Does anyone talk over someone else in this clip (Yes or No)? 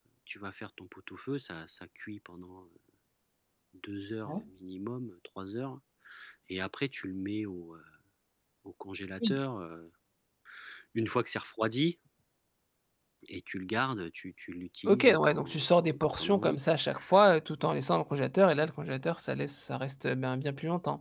Yes